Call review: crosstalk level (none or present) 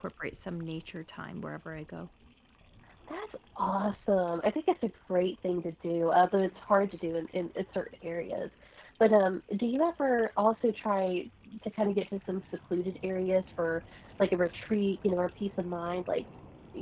none